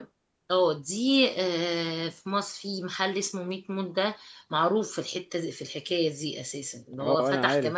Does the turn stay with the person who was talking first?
No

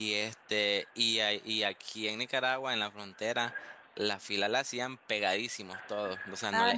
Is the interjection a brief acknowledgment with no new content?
Yes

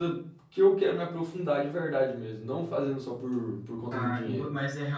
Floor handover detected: Yes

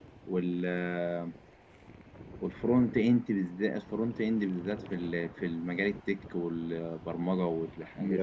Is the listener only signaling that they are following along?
No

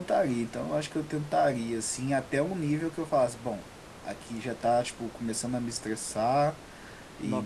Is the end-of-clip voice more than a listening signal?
Yes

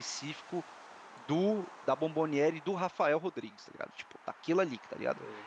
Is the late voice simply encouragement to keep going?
Yes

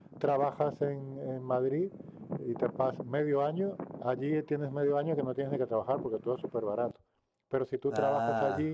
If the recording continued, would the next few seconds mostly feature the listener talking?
No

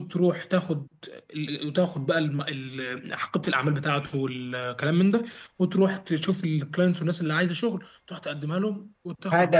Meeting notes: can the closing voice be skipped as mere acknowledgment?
No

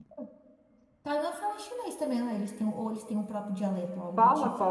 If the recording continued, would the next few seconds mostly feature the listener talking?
Yes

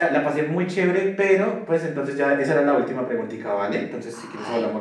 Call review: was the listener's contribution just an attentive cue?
No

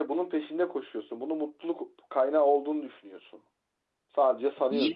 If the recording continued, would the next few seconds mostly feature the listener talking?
Yes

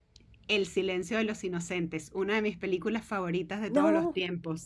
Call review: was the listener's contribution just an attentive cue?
No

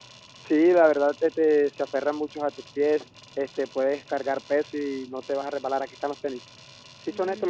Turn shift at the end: Yes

